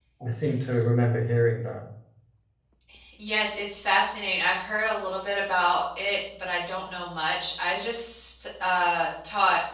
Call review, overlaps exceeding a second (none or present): none